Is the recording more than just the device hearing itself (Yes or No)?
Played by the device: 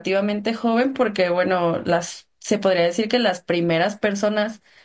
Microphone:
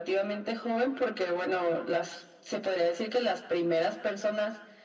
No